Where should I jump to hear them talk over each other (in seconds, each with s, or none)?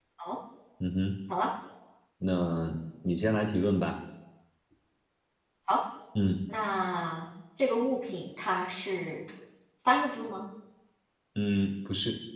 none